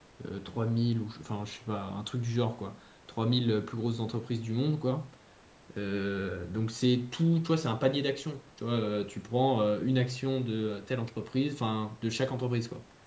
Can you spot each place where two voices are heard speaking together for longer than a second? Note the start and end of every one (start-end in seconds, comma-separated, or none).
none